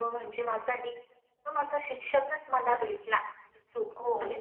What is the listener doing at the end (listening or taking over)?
taking over